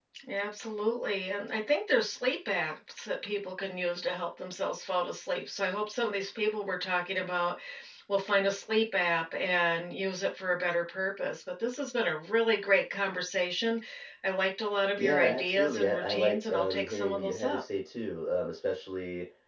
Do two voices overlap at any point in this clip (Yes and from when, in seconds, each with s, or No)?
Yes, from 15.0 s